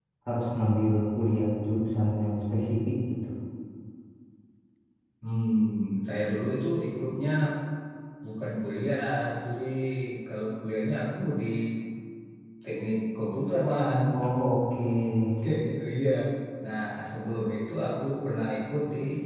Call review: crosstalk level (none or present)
none